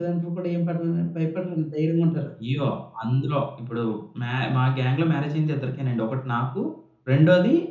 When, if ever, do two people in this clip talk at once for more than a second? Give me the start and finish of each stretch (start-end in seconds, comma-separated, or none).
none